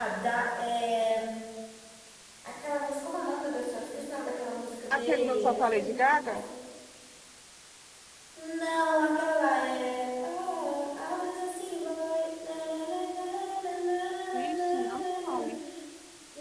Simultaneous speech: Yes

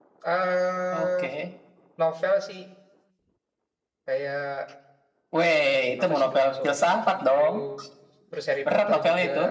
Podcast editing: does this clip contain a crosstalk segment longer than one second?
Yes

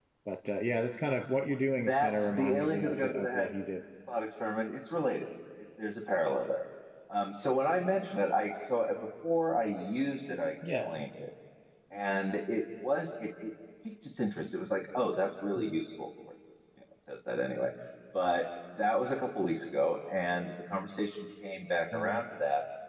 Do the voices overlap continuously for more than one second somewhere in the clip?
Yes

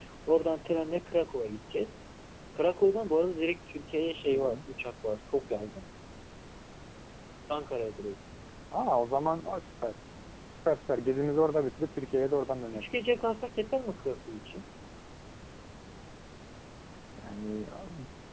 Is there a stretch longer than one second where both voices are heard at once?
No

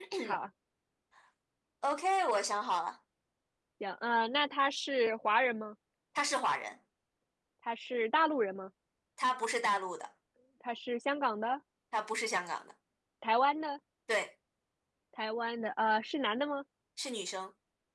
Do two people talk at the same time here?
No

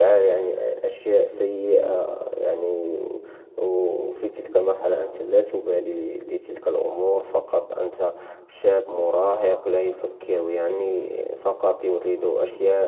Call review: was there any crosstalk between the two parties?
No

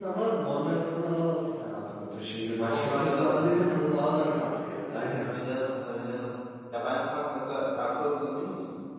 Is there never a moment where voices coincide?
No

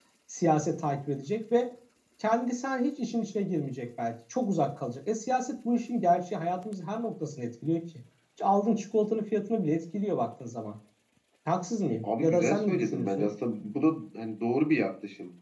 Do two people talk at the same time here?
Yes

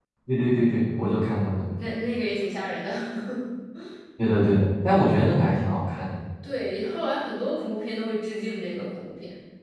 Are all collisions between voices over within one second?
Yes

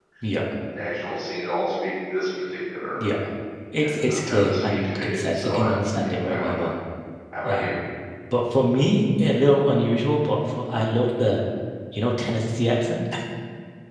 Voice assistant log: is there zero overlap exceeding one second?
No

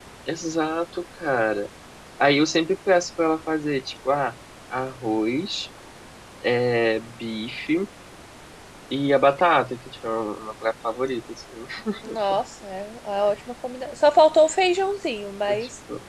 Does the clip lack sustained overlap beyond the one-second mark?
Yes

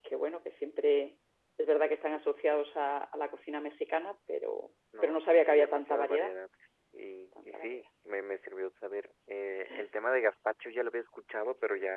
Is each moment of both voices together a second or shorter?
No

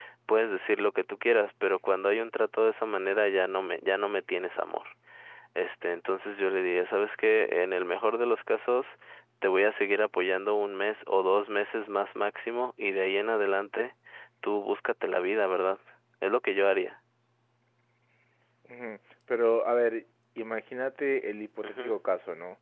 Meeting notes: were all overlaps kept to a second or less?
Yes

